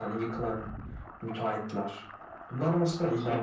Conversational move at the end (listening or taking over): listening